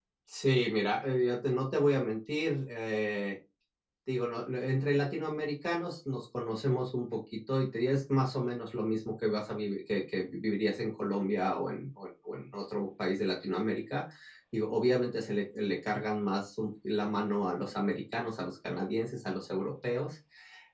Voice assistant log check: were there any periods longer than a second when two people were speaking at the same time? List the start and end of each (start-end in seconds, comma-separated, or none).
none